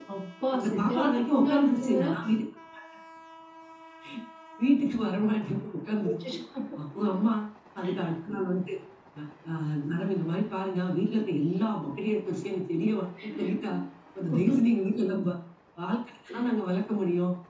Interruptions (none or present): present